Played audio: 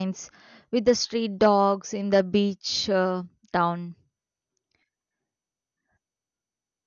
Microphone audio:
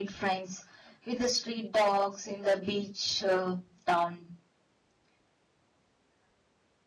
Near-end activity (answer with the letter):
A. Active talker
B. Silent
B